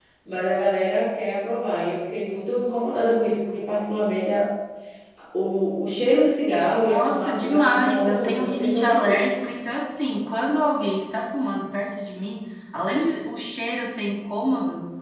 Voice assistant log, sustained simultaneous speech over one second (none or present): present